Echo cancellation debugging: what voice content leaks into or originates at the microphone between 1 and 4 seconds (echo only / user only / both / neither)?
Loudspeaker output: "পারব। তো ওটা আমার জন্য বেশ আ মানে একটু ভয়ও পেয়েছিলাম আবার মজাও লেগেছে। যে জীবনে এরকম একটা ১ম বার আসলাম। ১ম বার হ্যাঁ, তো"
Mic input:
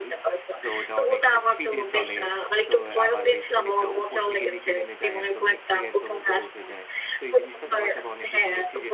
both